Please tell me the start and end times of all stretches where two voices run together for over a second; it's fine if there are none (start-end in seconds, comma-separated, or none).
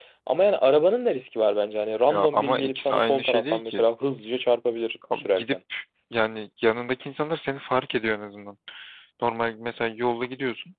2.1-3.8